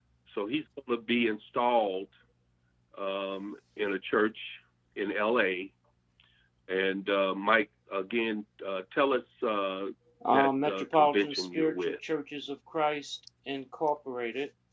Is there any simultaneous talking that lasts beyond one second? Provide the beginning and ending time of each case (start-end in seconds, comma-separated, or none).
10.3-12.1